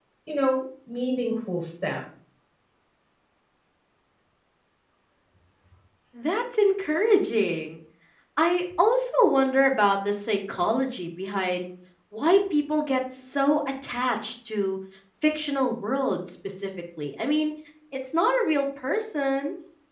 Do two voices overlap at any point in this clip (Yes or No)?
No